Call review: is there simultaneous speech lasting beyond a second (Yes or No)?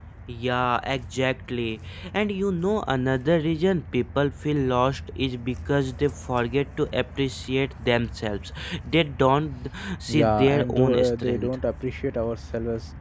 Yes